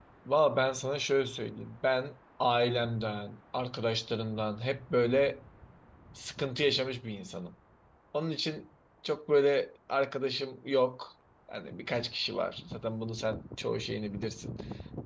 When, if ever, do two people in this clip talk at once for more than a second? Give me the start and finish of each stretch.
none

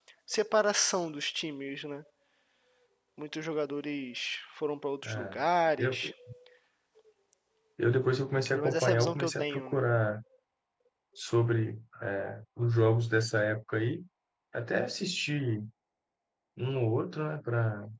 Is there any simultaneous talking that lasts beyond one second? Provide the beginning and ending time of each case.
8.5-9.8

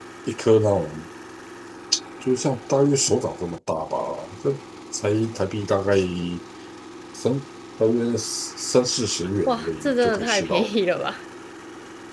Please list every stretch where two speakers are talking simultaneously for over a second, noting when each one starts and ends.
9.5-10.7

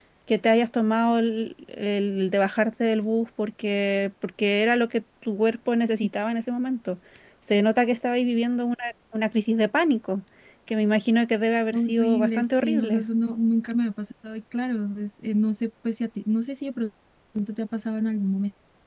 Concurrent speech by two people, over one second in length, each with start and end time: 11.7-13.0

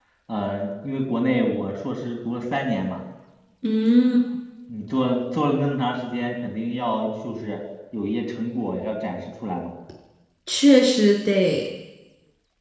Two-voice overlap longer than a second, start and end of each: none

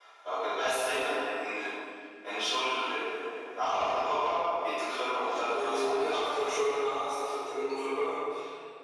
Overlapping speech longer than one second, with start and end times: 5.1-6.6

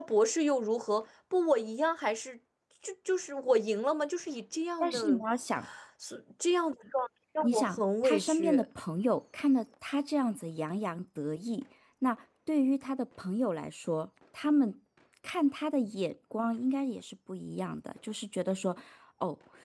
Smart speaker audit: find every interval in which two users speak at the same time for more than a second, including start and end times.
7.4-8.6

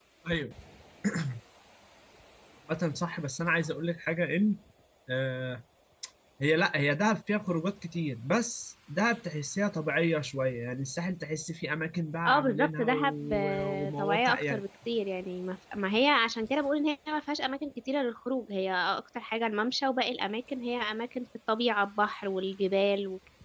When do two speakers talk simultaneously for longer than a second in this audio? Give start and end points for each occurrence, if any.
12.2-14.6

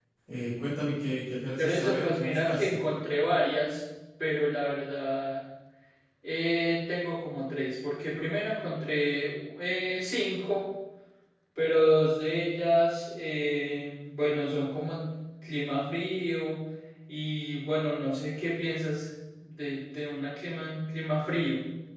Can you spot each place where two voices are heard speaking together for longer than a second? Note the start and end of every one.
1.6-2.8

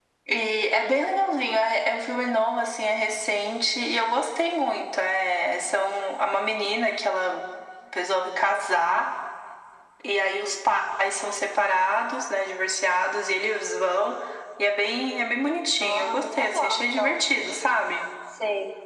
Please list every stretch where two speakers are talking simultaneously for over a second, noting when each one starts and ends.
15.8-17.2

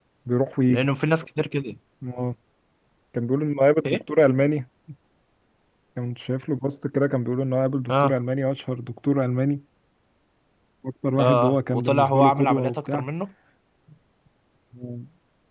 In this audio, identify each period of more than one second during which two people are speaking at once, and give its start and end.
11.2-13.1

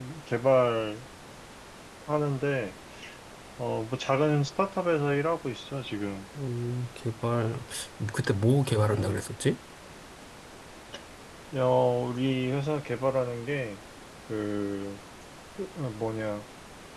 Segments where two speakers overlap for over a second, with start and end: none

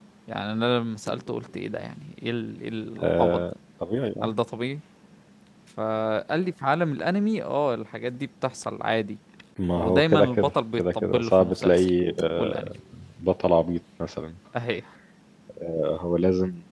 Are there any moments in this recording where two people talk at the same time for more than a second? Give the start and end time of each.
9.7-11.9

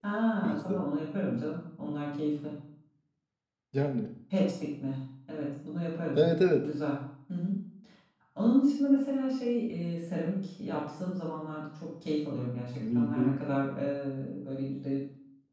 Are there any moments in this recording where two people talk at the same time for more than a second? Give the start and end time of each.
none

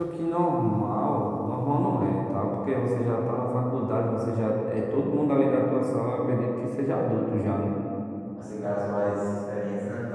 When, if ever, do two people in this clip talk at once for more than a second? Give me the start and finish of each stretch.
none

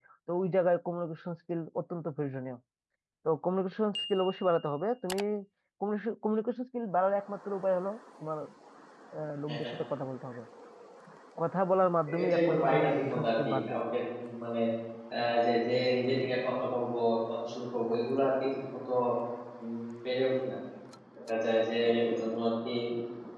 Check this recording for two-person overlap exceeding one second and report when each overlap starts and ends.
12.2-13.7

